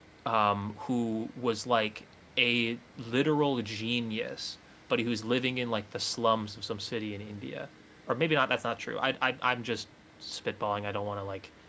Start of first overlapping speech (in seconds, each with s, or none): none